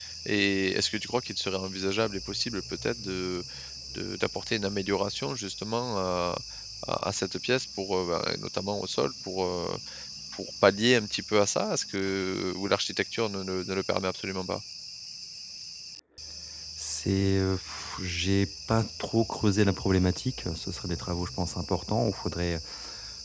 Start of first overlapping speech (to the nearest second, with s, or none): none